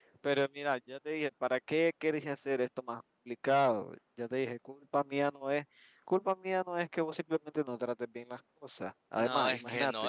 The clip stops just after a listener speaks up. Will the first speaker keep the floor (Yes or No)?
No